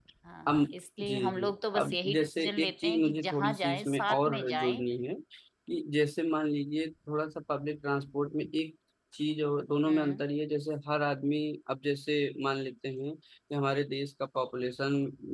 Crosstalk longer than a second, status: present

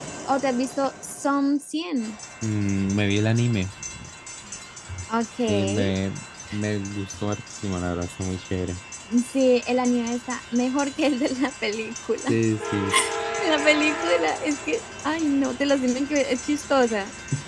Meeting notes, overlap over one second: none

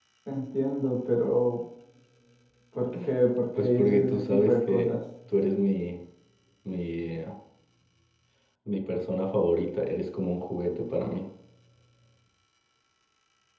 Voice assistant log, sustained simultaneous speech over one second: present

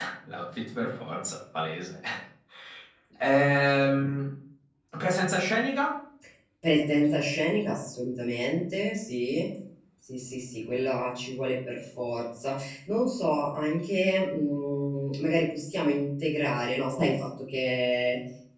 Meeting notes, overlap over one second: none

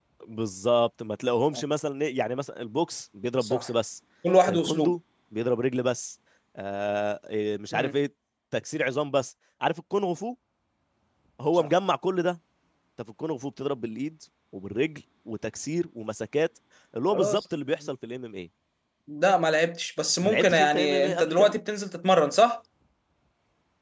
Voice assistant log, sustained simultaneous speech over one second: present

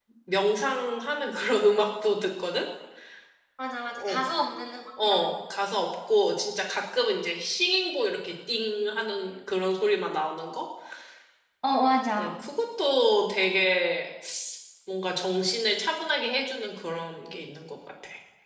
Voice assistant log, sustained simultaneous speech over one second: none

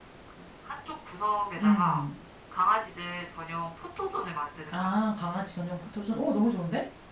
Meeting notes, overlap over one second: none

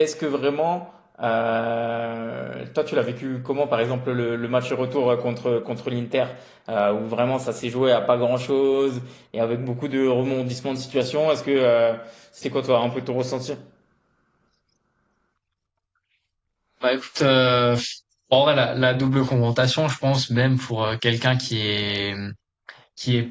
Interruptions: none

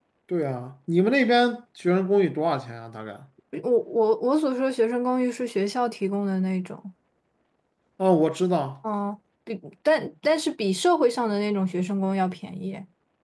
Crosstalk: none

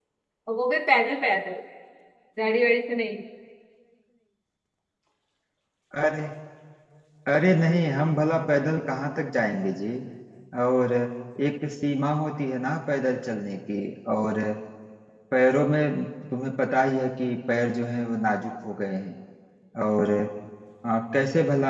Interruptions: none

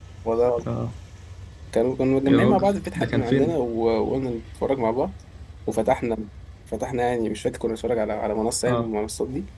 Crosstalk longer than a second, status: present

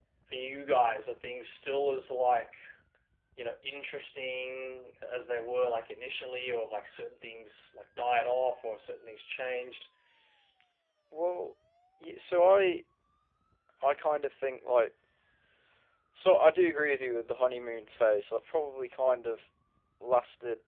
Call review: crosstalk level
none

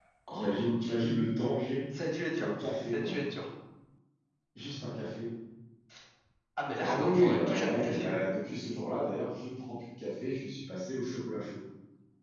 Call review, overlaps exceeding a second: present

